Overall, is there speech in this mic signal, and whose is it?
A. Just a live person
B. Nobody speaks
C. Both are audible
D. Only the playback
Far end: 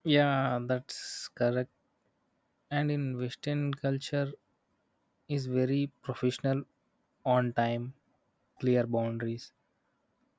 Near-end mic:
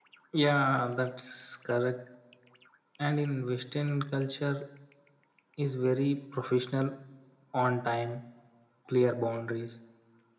D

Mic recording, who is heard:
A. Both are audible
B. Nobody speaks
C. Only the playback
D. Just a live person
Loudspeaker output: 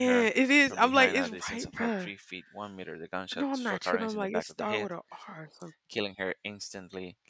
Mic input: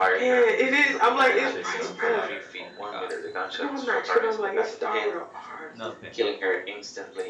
A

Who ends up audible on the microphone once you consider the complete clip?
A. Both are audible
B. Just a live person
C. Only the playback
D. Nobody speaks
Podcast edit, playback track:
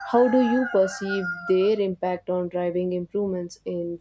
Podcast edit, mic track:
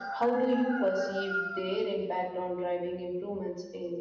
C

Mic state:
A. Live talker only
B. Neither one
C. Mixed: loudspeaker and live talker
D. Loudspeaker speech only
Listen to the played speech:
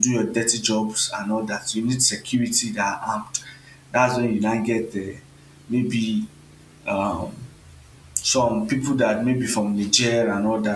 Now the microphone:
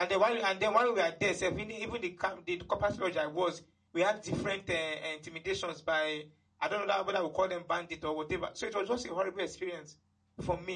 A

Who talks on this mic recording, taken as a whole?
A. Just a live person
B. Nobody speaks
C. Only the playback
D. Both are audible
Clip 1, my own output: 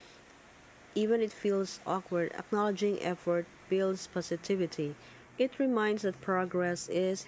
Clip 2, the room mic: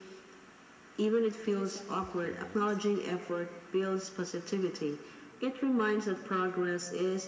D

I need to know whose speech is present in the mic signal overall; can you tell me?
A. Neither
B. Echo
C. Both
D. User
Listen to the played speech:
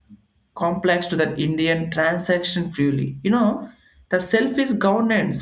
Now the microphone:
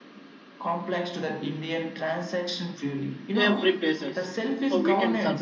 C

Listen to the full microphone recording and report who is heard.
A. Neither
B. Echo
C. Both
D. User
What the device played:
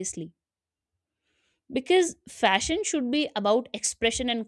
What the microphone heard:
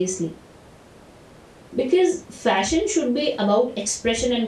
B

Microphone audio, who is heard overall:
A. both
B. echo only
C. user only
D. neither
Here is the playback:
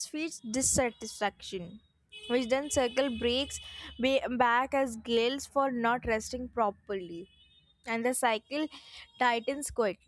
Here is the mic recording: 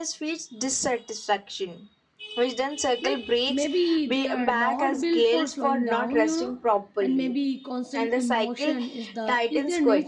A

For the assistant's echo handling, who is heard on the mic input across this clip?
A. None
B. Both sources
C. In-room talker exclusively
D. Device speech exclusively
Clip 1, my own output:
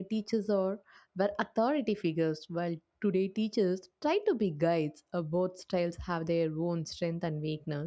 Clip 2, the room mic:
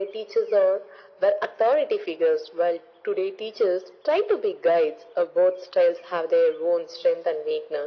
D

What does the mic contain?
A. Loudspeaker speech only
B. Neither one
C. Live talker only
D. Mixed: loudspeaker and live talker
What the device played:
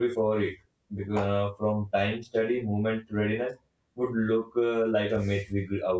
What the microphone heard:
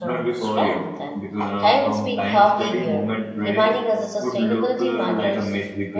D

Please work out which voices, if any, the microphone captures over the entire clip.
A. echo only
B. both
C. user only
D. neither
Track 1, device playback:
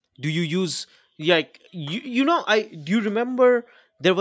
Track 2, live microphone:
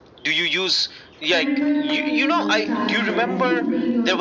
B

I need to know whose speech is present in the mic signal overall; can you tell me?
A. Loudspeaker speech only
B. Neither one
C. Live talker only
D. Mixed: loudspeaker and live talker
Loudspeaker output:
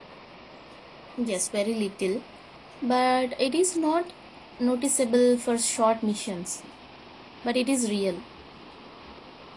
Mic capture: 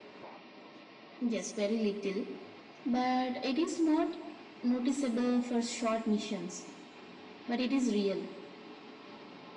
A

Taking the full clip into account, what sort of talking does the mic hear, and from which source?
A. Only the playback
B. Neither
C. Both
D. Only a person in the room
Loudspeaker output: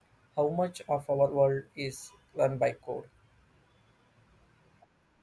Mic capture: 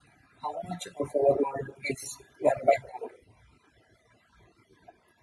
A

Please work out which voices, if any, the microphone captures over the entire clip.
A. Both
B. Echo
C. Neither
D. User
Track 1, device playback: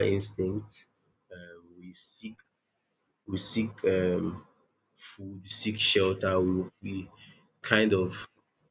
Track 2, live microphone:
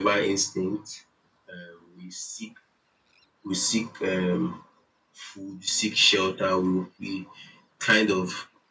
B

